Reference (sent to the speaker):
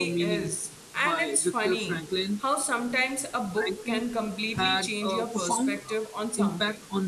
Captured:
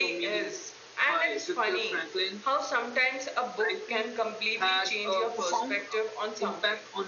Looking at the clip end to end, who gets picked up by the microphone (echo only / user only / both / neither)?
echo only